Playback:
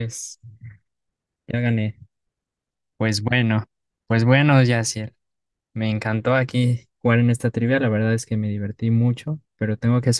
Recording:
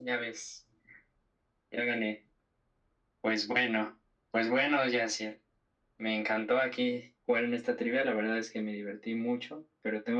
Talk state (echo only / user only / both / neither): echo only